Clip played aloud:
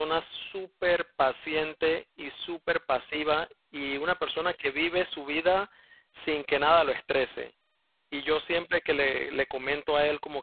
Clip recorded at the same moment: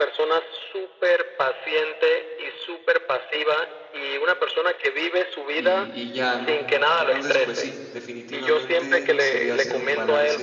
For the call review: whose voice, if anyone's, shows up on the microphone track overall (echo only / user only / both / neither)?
both